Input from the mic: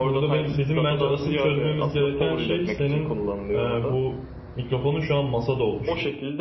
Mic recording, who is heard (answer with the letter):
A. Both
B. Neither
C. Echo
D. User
A